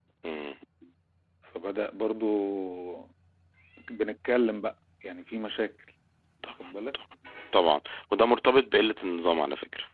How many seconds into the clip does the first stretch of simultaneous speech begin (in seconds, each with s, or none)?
none